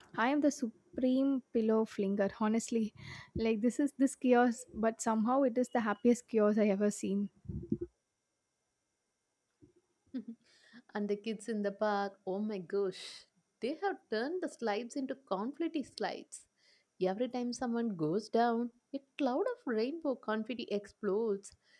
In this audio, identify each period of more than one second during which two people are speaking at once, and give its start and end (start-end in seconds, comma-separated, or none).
none